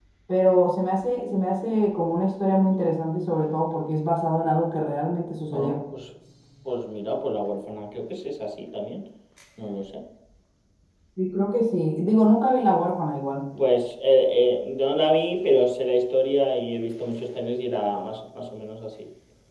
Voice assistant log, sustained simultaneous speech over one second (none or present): none